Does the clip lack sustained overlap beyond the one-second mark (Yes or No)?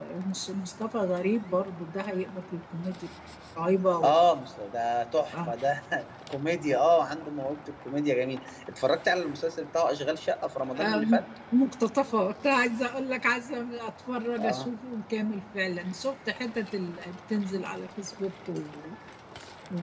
Yes